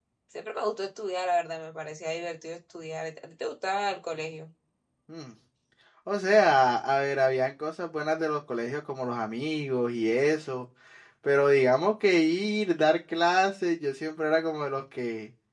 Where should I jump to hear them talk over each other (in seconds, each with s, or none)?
none